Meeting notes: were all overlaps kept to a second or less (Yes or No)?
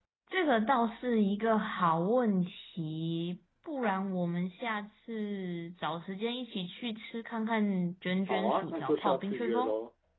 No